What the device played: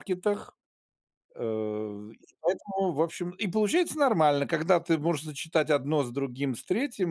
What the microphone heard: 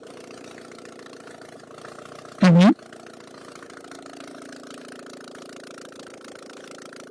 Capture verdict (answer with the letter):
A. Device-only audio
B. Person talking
B